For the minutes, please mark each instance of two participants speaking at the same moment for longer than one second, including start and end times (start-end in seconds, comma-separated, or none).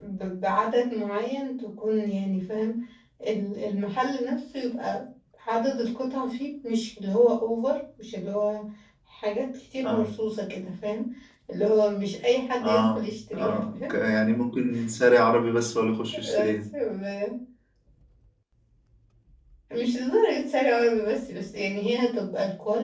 12.6-13.9